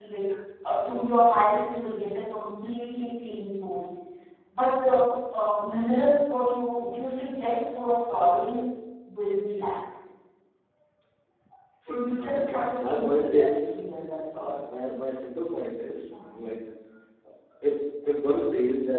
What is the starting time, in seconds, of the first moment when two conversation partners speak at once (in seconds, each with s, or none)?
11.9 s